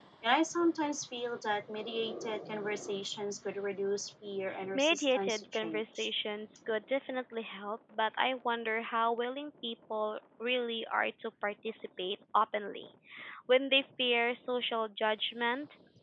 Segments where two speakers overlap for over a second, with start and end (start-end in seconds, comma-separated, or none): 4.7-6.1